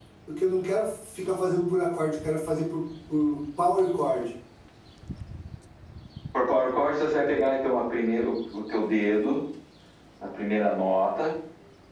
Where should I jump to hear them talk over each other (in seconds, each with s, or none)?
none